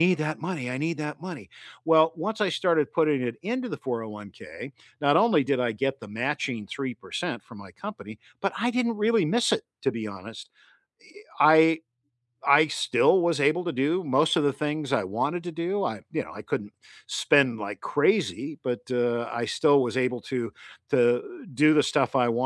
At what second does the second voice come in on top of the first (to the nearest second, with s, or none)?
none